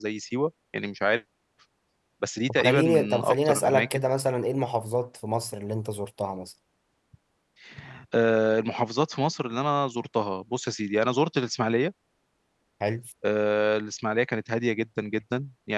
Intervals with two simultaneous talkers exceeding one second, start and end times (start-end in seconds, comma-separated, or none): 2.5-4.0